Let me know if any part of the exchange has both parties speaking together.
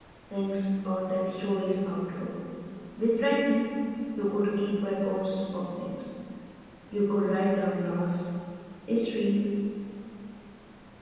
No

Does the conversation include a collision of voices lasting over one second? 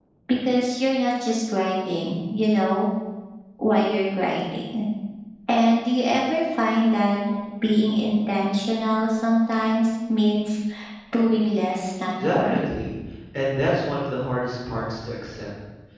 No

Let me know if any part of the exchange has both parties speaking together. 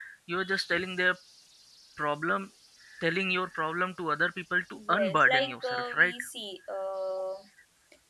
Yes, from 4.7 s

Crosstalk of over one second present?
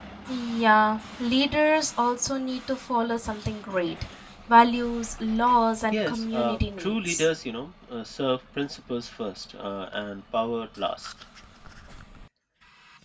Yes, from 5.9 s

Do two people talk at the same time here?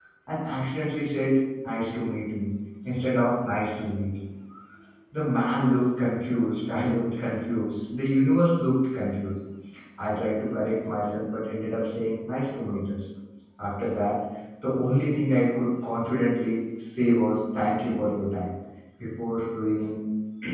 No

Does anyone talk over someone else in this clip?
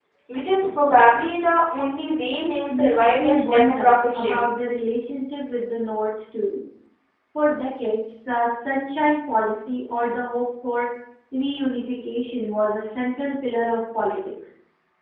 Yes, from 2.4 s

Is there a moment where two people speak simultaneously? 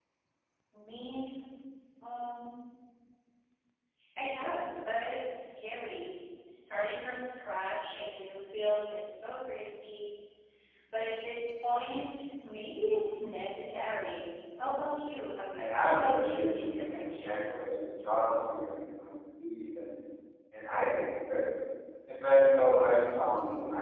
Yes, from 15.6 s

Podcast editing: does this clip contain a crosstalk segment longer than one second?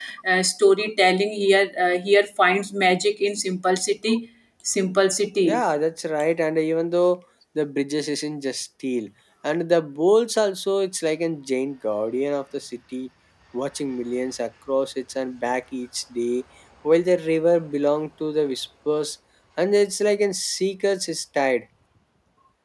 No

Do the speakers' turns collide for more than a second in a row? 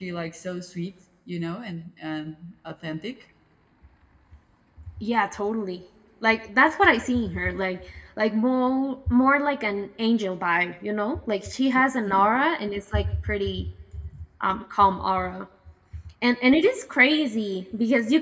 No

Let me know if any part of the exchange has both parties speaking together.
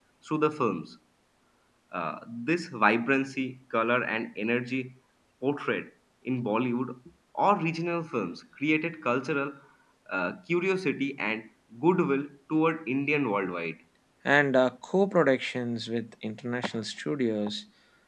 No

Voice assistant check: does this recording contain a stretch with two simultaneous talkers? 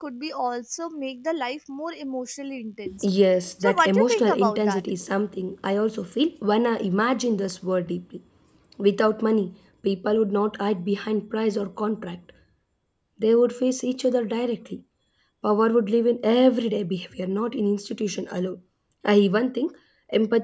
Yes, from 3.6 s

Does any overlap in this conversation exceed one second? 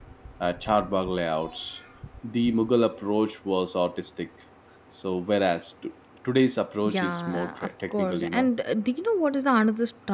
Yes, from 6.8 s

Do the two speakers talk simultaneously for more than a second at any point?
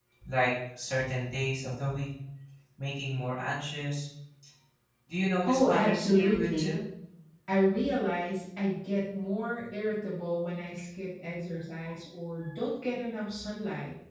Yes, from 5.5 s

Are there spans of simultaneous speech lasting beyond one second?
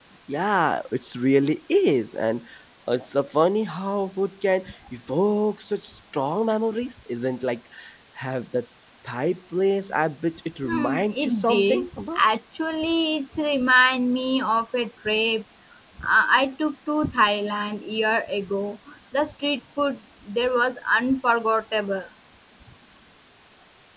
Yes, from 10.6 s

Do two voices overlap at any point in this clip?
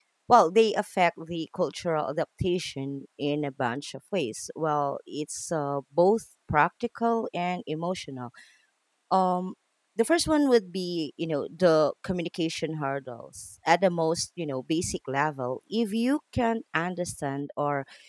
No

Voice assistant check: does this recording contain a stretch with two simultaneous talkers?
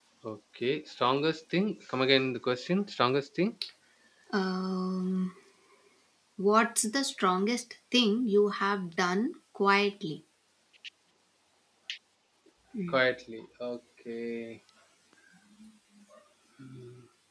No

